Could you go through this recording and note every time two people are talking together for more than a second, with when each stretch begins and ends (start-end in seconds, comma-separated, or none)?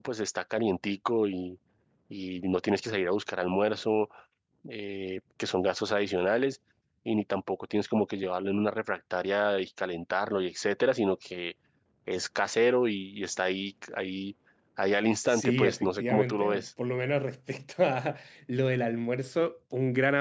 15.3-16.6